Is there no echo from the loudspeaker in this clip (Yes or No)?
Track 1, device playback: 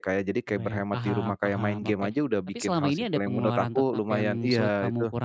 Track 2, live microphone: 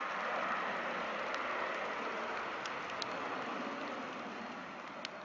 Yes